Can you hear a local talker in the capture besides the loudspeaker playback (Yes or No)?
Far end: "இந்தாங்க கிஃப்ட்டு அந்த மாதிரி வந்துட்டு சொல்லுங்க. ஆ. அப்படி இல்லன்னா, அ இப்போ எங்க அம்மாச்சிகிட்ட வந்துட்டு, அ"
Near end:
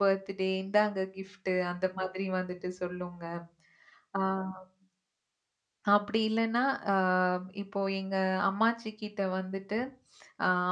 No